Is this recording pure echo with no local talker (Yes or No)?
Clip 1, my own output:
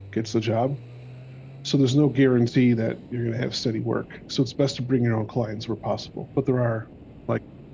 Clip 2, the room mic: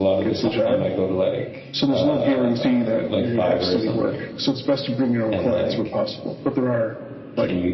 No